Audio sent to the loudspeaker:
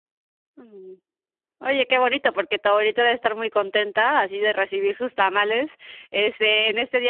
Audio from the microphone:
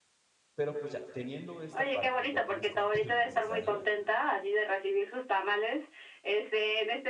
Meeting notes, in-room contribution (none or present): present